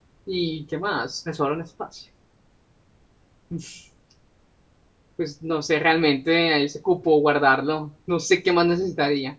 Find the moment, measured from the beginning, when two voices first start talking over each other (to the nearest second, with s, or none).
none